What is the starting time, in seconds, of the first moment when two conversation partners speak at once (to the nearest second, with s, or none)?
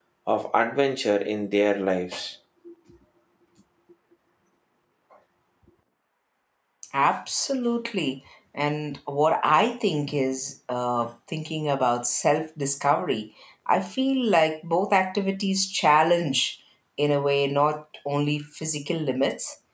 none